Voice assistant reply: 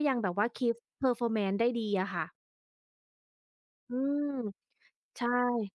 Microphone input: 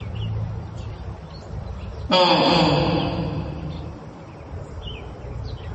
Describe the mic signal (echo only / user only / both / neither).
user only